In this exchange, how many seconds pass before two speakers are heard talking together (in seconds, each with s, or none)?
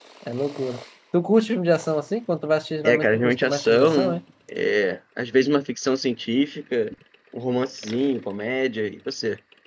2.8 s